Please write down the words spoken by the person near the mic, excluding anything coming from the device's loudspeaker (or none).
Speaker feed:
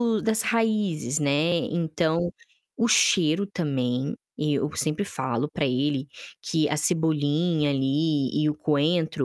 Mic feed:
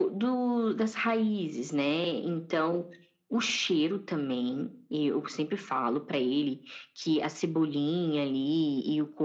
none